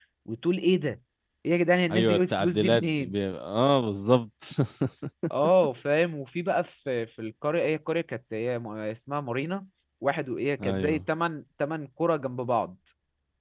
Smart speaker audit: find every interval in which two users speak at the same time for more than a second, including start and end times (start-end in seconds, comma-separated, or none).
1.9-3.1